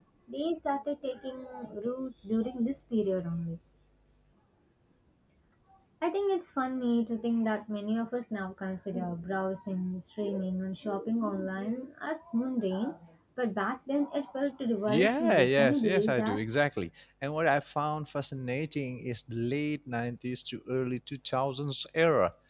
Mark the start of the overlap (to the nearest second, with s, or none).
15 s